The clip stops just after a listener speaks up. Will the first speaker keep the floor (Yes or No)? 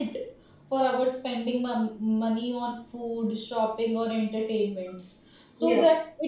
Yes